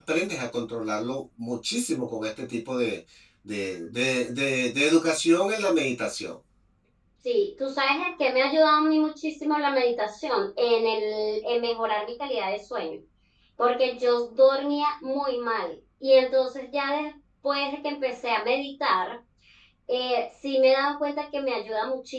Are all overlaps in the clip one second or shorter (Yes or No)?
Yes